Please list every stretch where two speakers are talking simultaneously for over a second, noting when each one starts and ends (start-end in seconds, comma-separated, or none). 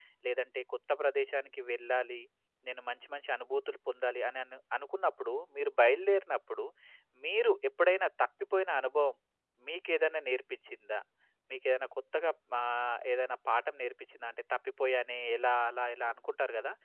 none